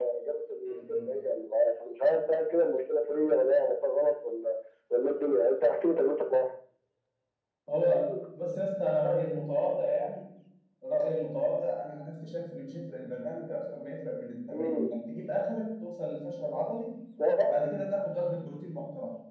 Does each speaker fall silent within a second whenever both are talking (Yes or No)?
Yes